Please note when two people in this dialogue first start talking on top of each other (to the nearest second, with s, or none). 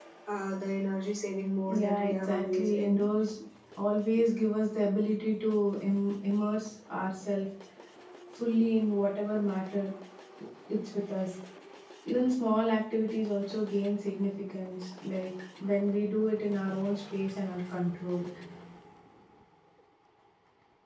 2 s